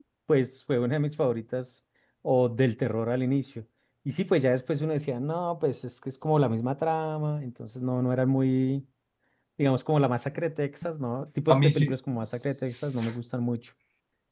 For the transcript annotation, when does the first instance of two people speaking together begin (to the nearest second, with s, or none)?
11 s